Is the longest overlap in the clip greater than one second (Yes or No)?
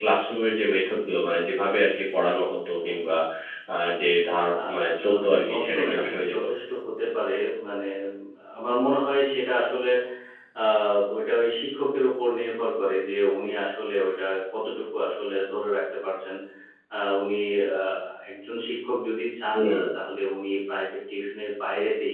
Yes